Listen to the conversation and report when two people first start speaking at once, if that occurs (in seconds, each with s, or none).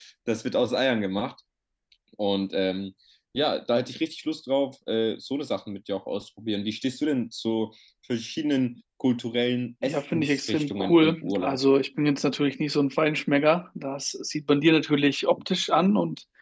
9.8 s